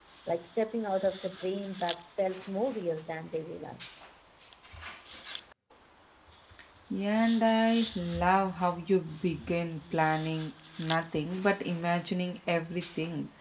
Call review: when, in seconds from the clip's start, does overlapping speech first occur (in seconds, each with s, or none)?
none